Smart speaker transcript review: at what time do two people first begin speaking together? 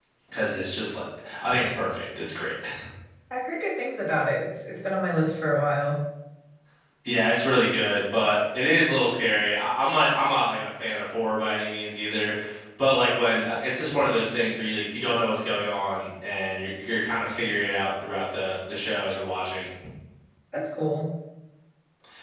none

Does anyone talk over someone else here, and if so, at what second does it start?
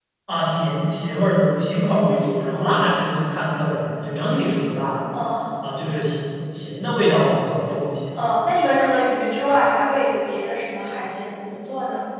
none

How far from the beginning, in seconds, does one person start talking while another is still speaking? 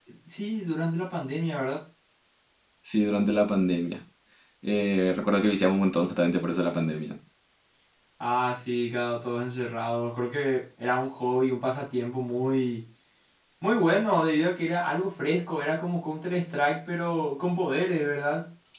none

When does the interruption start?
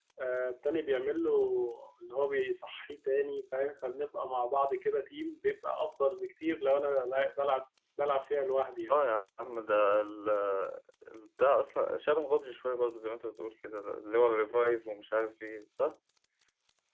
none

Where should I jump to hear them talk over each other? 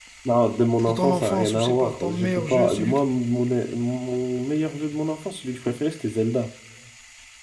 0.9 s

